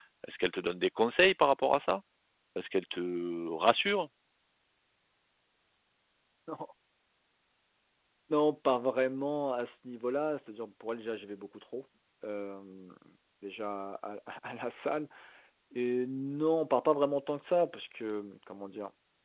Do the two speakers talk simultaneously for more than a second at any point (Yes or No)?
No